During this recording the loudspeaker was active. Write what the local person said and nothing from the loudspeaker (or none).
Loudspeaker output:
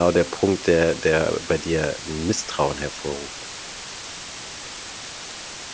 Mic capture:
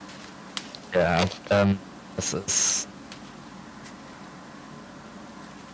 Ja, ähm, das ist